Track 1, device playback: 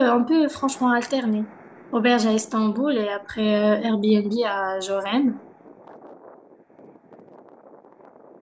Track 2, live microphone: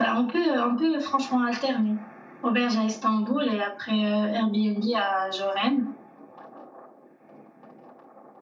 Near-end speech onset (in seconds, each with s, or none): none